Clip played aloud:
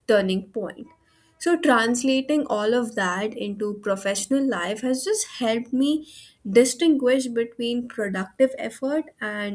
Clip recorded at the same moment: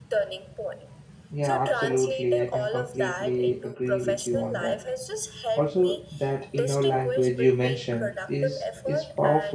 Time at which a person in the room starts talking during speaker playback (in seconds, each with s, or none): 1.3 s